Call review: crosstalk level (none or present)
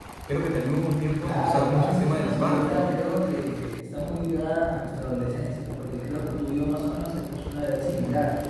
present